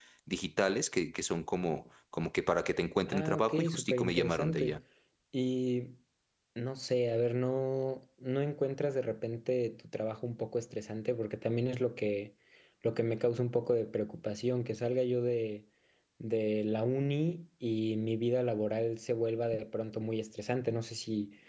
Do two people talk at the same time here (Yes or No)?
Yes